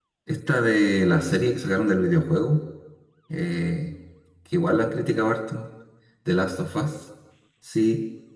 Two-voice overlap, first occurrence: none

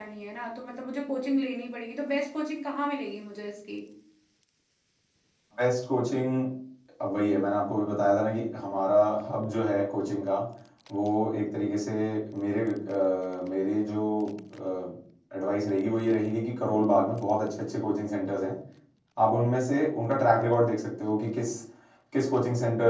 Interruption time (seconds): none

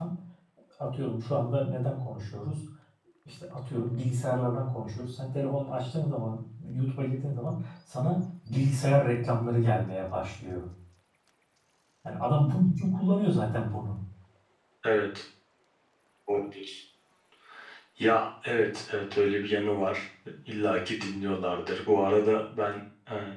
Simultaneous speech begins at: none

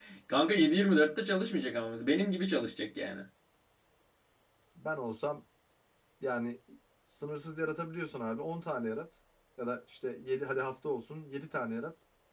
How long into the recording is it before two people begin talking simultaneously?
none

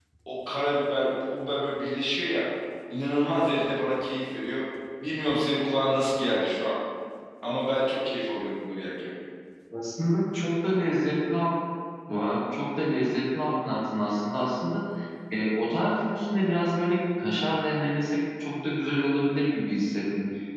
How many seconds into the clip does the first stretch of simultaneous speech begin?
none

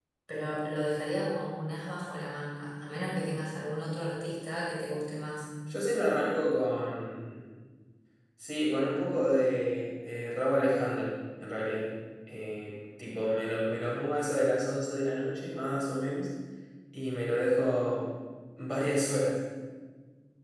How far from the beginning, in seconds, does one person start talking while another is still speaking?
none

